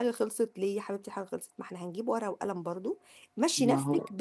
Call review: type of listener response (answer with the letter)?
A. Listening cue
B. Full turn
A